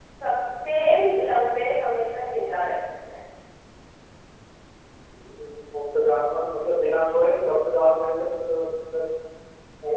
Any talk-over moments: No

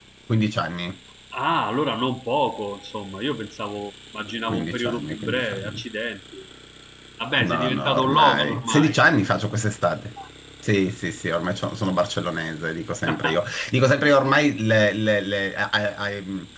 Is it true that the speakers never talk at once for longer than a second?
No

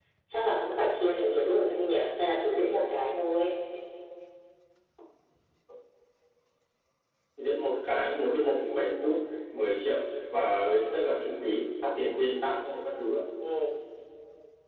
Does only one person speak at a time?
Yes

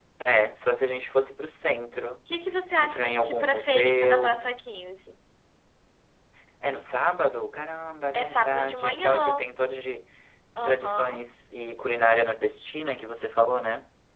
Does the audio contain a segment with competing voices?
Yes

